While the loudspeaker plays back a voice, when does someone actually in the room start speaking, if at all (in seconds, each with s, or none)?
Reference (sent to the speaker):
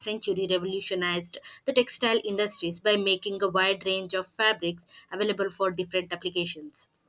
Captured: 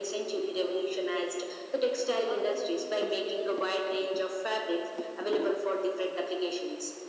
2.2 s